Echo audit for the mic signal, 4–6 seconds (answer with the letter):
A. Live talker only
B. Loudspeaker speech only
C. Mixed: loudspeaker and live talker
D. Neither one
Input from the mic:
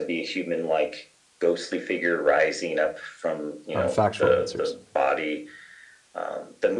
C